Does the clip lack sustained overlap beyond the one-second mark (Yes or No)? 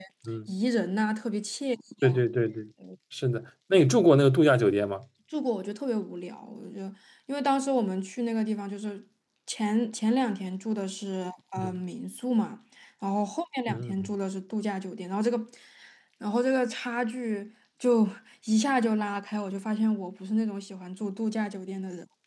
Yes